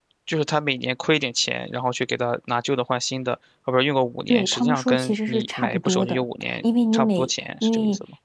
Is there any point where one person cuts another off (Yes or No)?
Yes